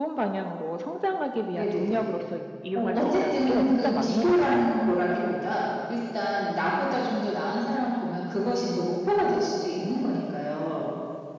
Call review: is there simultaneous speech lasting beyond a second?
Yes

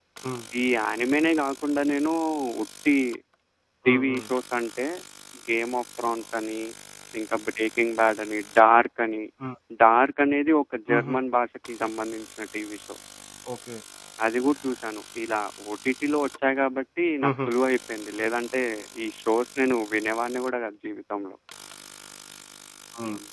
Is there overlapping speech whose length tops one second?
No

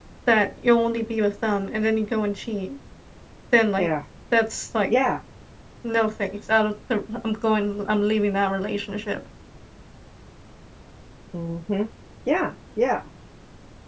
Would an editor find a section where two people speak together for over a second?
No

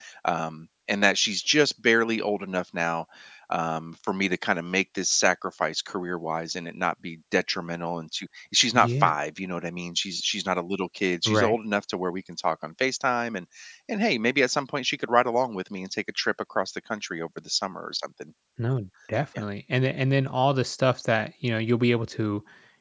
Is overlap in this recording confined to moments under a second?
Yes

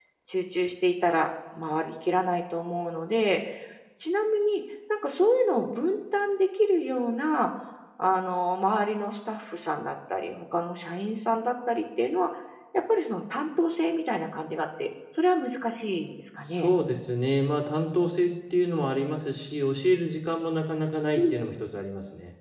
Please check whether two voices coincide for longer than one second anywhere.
No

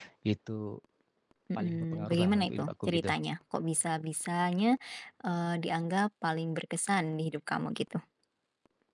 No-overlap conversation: No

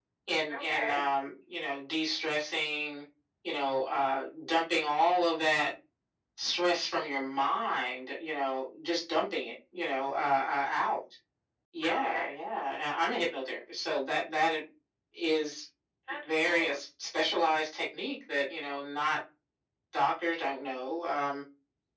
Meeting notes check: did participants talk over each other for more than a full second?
No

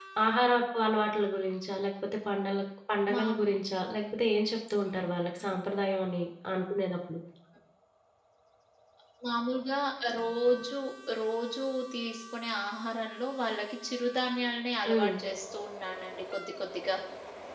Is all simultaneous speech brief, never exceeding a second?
Yes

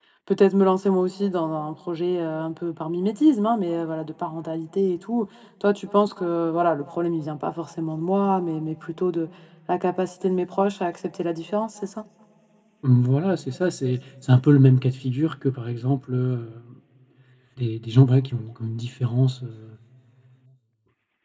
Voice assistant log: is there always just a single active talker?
Yes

